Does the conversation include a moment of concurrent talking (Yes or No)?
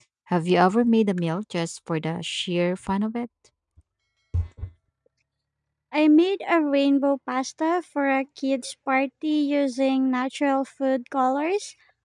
No